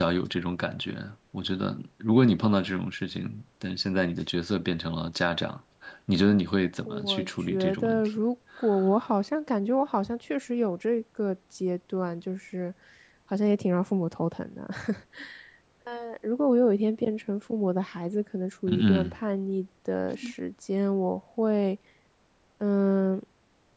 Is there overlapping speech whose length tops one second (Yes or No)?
Yes